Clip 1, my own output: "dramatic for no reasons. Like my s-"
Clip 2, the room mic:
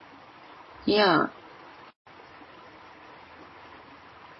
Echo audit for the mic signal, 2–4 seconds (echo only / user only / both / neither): neither